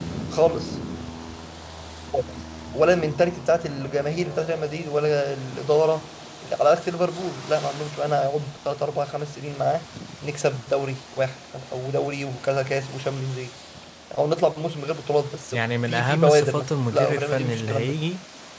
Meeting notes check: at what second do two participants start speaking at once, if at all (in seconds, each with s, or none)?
15.5 s